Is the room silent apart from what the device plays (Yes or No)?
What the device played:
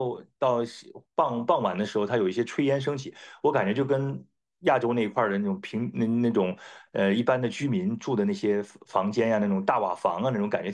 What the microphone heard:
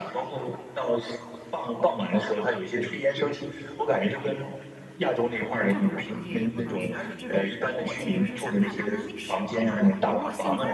No